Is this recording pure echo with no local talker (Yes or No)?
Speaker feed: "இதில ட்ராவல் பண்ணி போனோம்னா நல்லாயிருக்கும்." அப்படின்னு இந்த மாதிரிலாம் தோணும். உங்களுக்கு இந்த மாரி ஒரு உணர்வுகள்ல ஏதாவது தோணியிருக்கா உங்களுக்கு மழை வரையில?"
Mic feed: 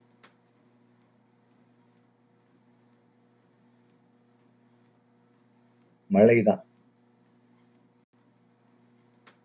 No